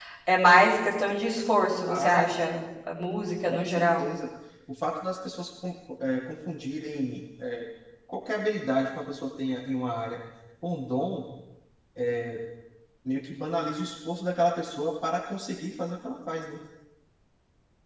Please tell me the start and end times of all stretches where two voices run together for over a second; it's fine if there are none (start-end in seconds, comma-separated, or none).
none